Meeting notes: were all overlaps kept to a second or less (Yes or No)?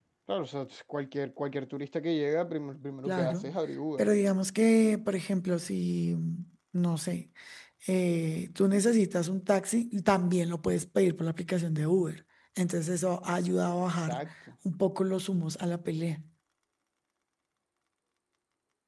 Yes